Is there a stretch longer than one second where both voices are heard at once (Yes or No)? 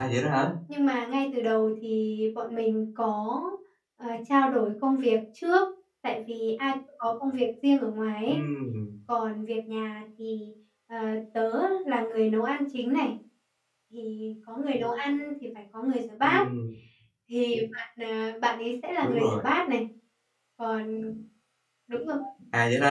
No